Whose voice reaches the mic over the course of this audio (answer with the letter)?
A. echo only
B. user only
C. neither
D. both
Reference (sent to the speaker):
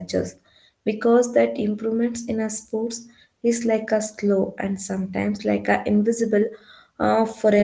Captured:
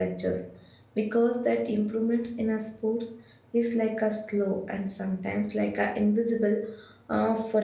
A